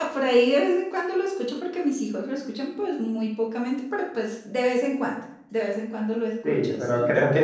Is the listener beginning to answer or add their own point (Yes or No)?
Yes